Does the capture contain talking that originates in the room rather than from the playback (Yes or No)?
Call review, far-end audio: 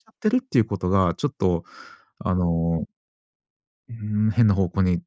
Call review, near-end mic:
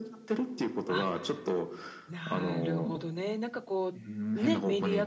Yes